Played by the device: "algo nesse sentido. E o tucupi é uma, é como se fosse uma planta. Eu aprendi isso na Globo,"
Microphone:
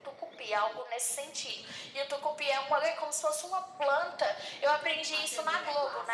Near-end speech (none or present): present